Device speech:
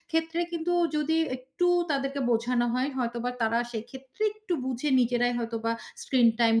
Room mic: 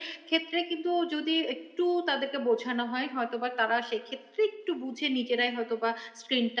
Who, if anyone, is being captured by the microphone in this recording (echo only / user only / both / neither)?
echo only